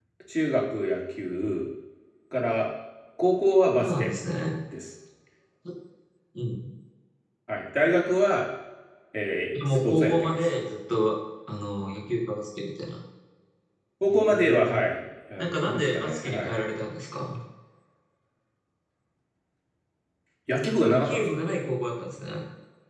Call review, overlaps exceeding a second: present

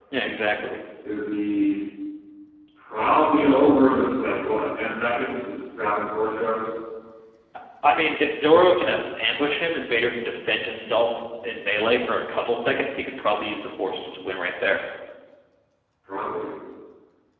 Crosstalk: none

